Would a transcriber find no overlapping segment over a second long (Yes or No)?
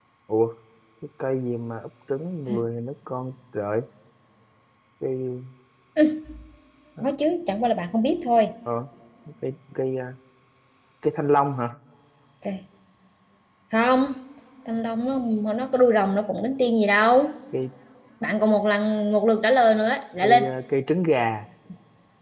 Yes